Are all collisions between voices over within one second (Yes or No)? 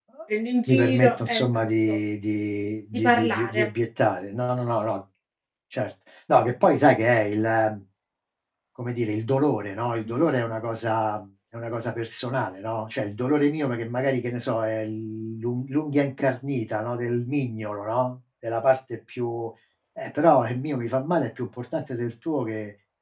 No